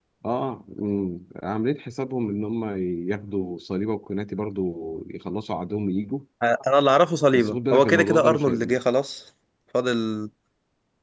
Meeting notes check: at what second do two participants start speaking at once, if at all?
7.3 s

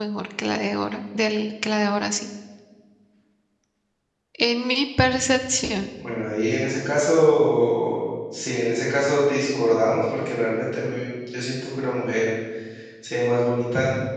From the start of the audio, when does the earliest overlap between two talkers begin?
none

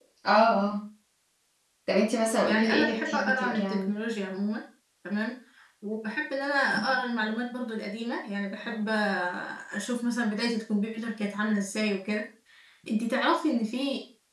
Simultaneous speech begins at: 2.4 s

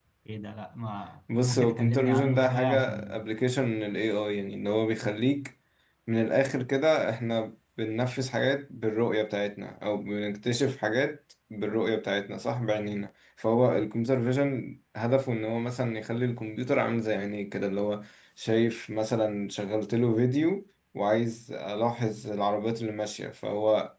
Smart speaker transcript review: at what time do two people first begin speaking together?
1.3 s

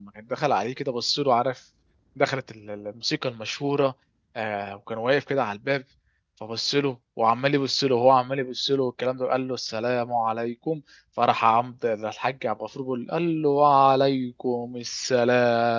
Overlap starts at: none

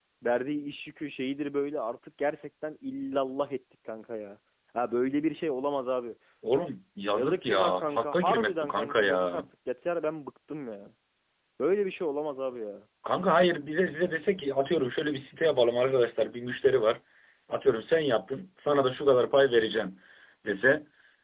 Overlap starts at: 7.1 s

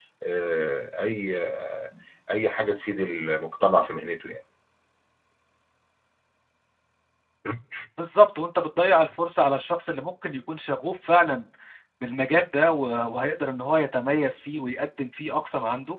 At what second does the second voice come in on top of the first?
none

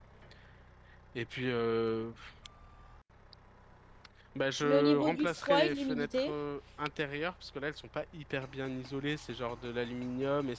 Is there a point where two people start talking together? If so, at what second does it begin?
4.6 s

